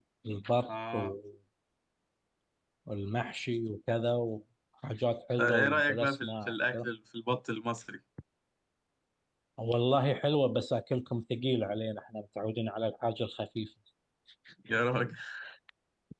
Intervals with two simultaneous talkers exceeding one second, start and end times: 5.4-6.9

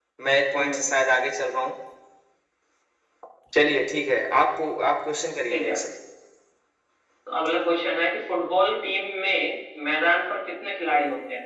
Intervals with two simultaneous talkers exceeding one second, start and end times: none

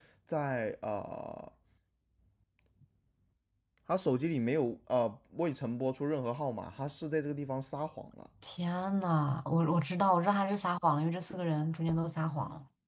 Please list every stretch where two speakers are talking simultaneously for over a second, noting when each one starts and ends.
none

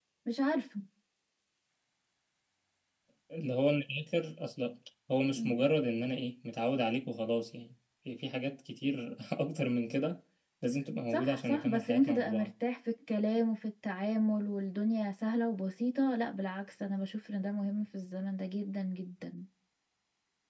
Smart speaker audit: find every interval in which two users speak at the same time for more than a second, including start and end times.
11.1-12.5

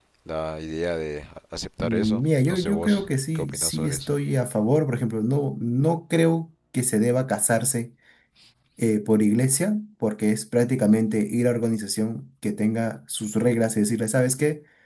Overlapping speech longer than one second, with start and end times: 1.8-4.1

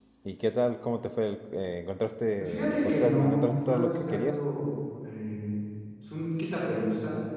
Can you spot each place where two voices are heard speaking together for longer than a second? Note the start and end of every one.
2.4-4.4

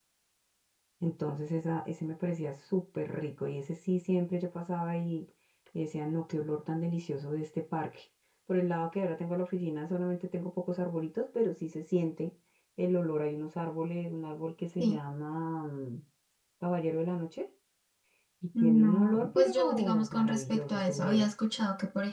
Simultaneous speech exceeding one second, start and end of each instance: 18.6-21.3

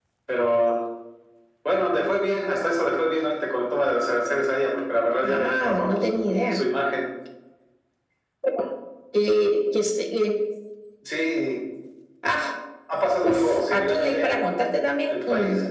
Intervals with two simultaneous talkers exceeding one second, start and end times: 5.2-6.6, 13.2-14.4

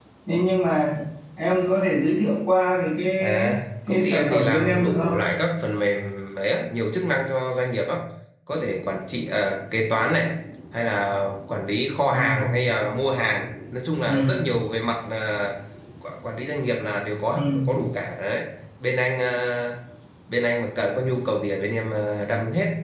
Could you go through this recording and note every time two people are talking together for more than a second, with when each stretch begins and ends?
3.9-5.2

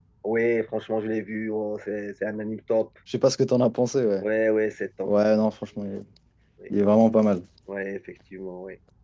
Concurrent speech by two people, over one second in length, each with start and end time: none

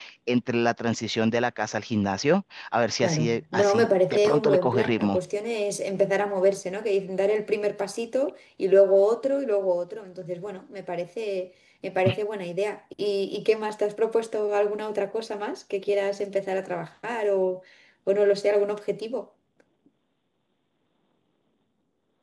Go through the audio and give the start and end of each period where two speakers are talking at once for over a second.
3.0-5.2

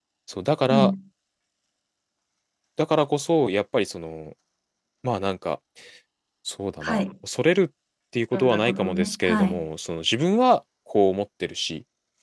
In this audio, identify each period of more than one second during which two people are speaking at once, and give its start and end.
8.3-9.6

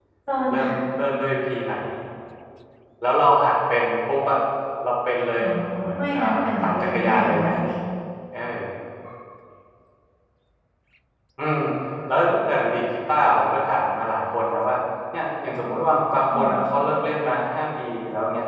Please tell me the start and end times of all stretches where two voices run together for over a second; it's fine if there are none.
6.0-7.5

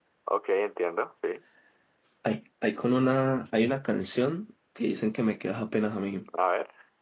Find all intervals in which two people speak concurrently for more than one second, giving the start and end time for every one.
none

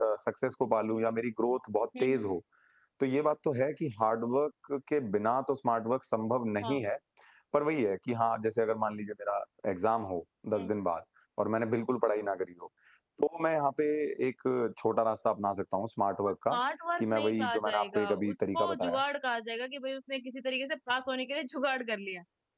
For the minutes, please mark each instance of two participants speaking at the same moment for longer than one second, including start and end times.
17.0-19.0

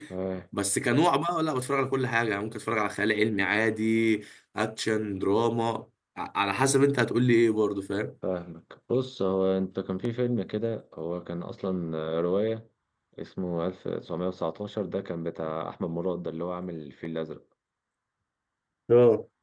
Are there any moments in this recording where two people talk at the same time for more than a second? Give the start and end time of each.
none

